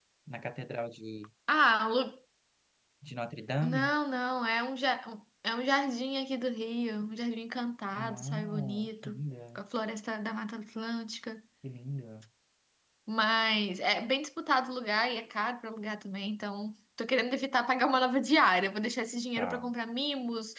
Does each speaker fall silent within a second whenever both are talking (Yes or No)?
No